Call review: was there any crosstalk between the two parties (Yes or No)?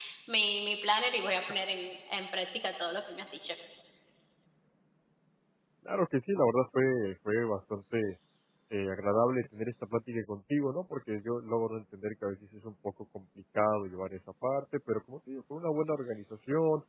No